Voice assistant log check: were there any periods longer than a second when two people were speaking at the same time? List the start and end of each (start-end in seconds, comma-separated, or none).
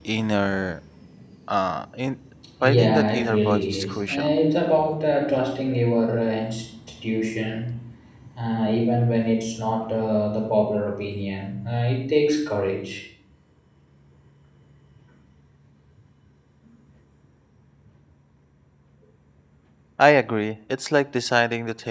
2.6-4.4